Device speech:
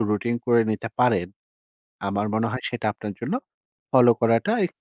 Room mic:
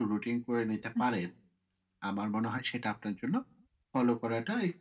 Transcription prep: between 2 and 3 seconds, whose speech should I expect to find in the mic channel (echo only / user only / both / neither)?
echo only